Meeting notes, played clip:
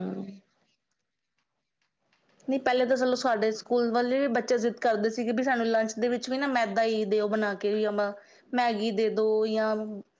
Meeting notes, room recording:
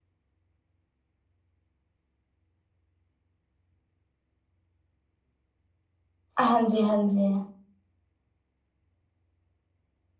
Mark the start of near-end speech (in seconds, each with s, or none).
6.4 s